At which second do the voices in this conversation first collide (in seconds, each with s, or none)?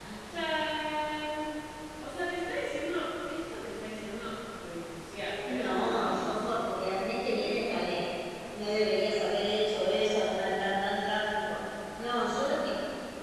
5.4 s